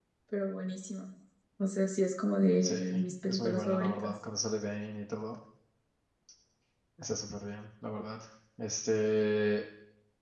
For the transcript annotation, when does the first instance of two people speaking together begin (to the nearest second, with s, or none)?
3 s